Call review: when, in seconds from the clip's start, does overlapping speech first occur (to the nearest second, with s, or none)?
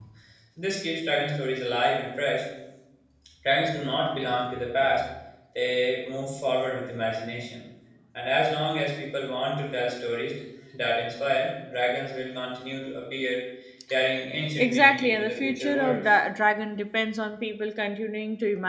15 s